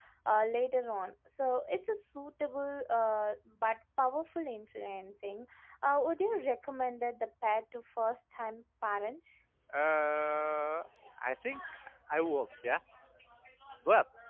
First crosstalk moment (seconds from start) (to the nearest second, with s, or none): none